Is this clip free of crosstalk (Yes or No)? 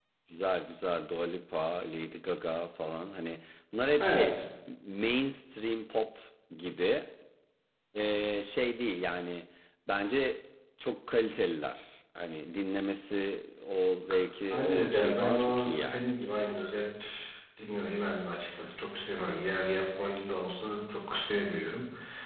No